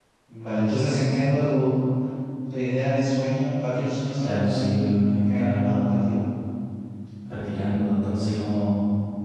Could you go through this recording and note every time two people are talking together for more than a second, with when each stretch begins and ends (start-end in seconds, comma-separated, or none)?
4.2-6.1